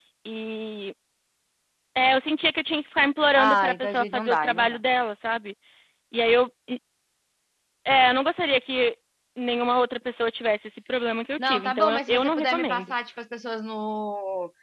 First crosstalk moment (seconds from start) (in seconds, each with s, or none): 3.4 s